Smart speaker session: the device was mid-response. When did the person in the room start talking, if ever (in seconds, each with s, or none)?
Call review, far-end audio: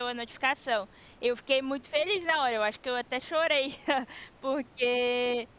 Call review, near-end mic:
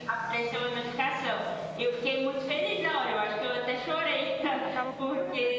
4.6 s